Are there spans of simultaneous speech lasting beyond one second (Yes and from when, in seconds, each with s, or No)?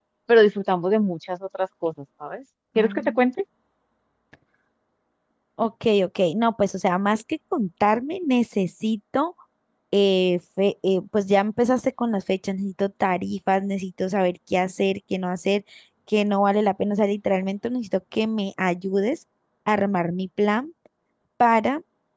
No